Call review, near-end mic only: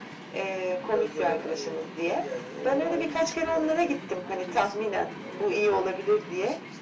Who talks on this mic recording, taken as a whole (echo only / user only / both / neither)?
echo only